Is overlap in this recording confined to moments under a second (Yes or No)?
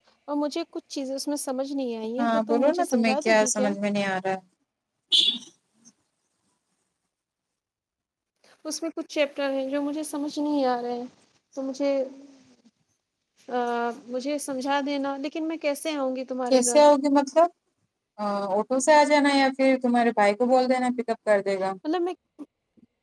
No